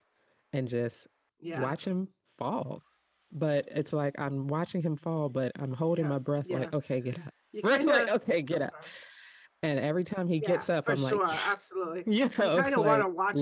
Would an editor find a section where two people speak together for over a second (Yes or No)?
Yes